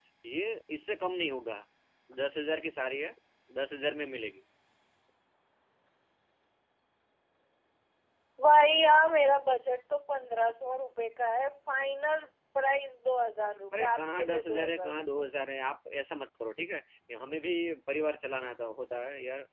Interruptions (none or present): present